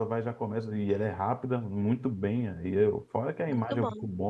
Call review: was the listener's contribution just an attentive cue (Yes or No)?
Yes